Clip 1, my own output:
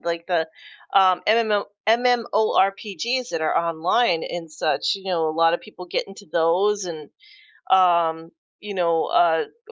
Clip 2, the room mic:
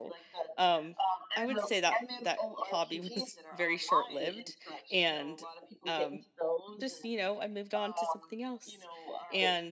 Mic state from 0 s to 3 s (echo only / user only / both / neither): both